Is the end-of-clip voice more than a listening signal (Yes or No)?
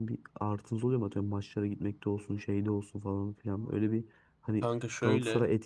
No